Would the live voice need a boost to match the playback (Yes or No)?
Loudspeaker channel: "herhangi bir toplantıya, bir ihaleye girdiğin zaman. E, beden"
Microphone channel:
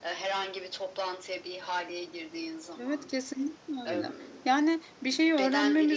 No